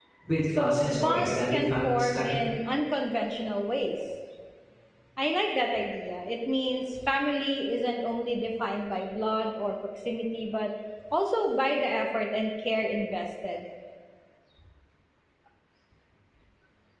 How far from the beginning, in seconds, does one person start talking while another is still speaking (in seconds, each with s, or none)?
0.5 s